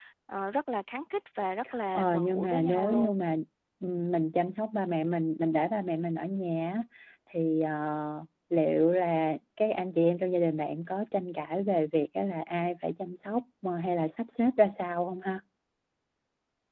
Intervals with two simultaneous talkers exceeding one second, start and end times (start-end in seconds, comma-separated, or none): 1.9-3.2